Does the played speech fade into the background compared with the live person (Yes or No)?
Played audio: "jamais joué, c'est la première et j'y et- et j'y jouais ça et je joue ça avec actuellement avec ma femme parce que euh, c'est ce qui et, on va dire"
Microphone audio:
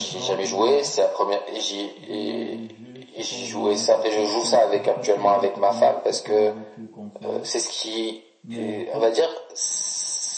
No